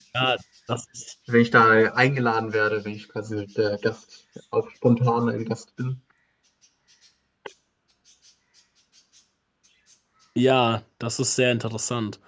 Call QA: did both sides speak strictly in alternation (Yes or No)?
Yes